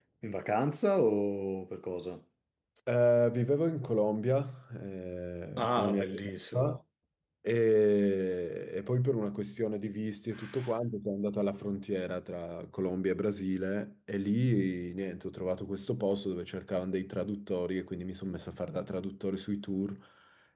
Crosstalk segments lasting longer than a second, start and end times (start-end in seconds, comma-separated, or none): 5.6-6.8